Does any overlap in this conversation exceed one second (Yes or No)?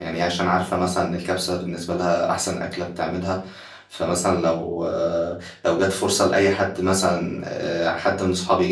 No